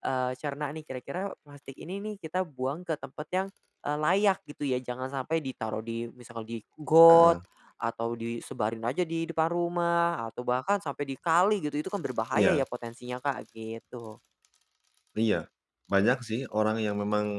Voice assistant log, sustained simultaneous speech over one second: none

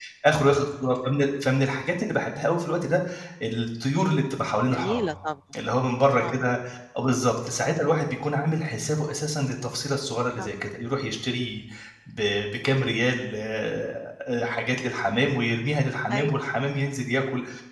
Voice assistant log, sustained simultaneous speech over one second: none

